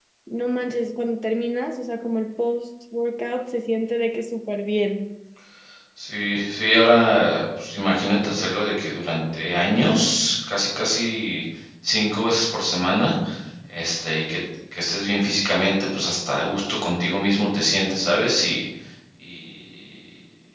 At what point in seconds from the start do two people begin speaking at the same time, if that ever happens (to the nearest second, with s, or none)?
none